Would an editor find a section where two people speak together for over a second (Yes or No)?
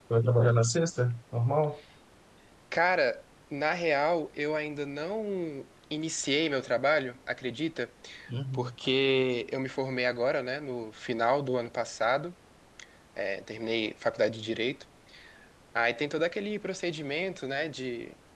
No